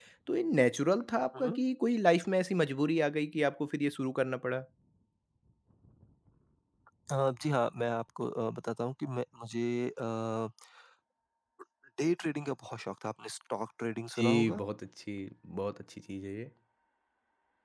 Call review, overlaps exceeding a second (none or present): none